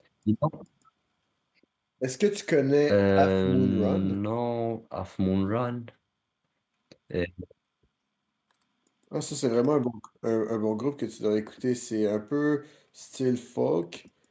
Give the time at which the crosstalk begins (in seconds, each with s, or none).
2.9 s